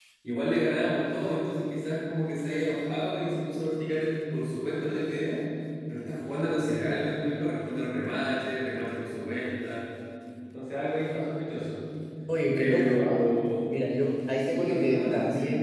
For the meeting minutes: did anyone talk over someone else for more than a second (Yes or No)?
Yes